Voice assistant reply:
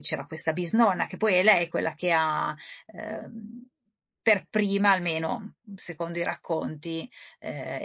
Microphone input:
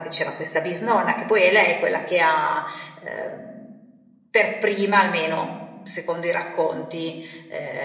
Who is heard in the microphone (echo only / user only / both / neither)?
echo only